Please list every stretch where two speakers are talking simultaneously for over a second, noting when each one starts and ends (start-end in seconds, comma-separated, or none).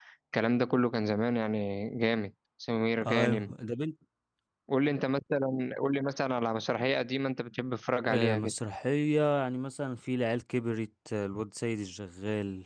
none